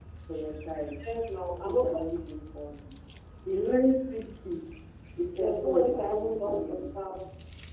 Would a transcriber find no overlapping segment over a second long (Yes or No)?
No